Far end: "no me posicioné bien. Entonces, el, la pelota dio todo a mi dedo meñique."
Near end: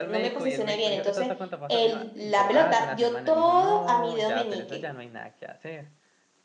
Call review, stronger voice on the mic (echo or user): echo